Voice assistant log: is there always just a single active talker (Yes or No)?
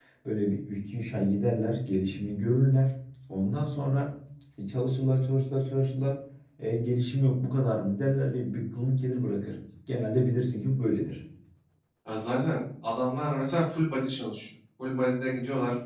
Yes